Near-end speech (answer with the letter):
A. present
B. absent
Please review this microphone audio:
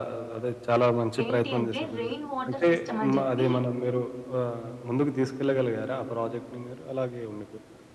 A